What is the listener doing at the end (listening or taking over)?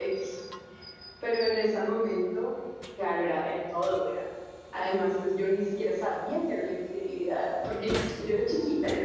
listening